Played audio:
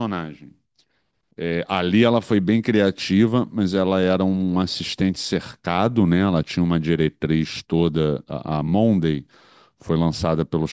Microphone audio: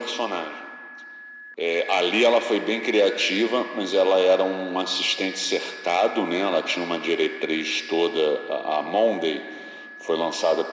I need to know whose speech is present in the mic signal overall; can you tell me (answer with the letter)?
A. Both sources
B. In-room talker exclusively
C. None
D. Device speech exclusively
D